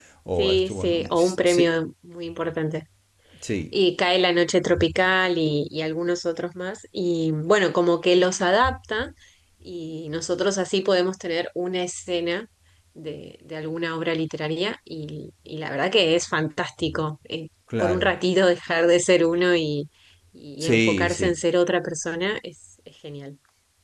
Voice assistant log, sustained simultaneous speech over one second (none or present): present